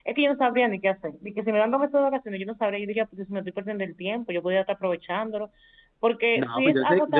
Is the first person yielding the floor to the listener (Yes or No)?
Yes